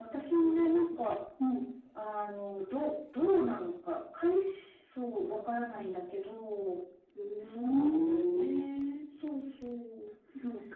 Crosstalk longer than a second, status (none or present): present